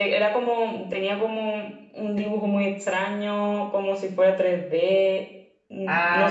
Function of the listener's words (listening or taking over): taking over